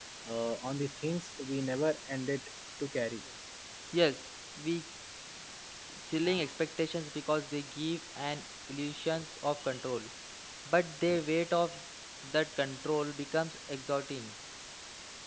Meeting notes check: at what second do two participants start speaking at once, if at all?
none

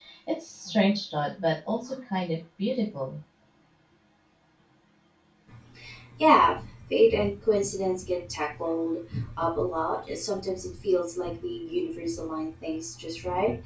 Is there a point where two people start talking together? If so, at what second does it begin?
none

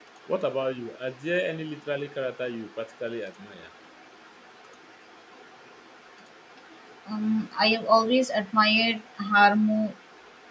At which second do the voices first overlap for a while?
none

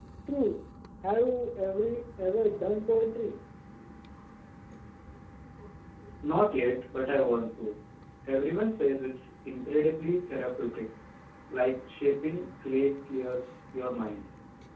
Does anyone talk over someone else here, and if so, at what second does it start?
none

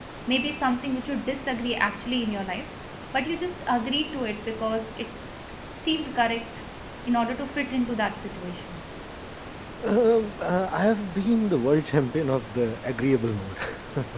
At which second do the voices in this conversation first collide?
none

